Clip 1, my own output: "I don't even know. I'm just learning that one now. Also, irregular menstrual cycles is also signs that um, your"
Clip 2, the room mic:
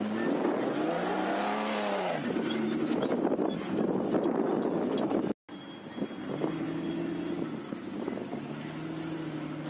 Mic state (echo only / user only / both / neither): neither